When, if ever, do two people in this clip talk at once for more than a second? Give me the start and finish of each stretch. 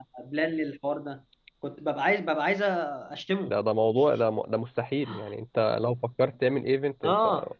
none

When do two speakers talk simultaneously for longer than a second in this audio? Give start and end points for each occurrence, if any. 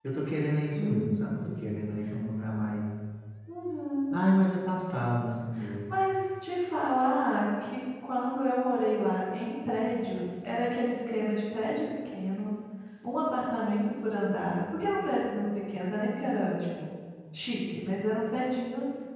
none

